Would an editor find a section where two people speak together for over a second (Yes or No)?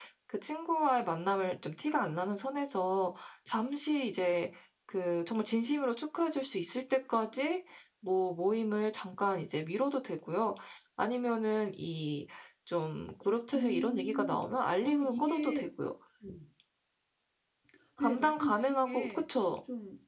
Yes